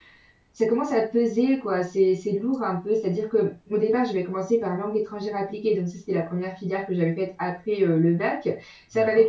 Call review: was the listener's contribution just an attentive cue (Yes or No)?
Yes